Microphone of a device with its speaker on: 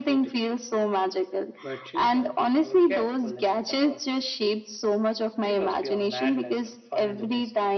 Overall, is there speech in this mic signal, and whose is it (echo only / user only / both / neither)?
echo only